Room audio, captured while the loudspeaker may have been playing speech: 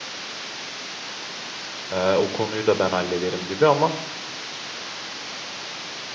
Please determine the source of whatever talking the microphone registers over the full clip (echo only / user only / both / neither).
user only